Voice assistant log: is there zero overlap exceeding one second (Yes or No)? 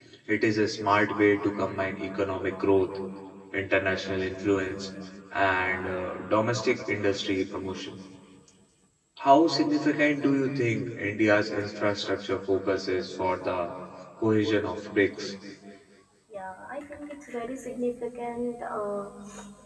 Yes